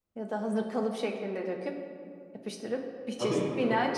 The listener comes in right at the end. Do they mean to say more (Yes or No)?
Yes